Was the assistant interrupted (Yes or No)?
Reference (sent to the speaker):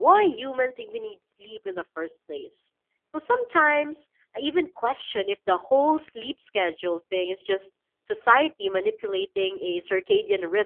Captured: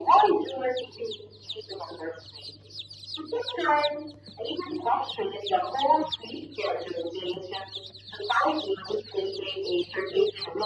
No